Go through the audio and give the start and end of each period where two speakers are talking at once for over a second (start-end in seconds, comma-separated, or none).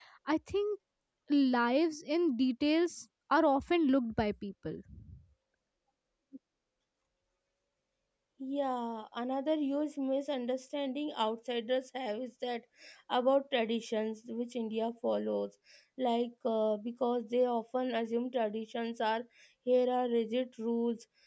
none